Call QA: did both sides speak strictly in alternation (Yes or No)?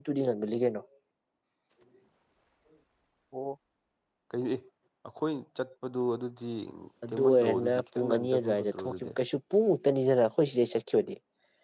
No